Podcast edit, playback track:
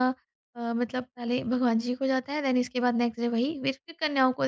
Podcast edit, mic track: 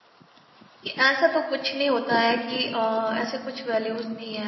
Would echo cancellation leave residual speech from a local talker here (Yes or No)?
Yes